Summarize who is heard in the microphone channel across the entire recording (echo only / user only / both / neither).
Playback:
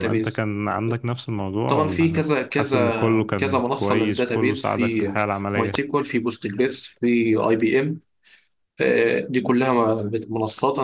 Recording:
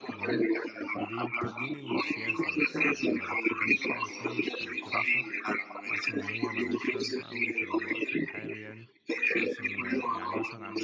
both